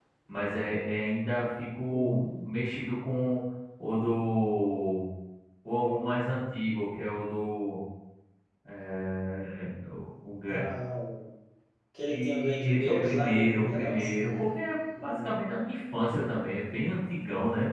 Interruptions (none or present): present